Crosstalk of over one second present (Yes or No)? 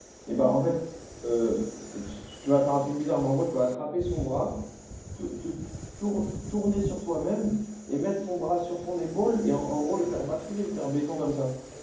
No